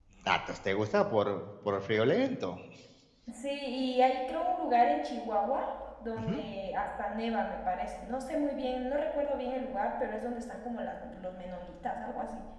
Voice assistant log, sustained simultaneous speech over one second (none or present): none